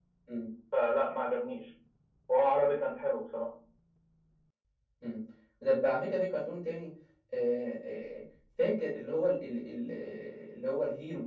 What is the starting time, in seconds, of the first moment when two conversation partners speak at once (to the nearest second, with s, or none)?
none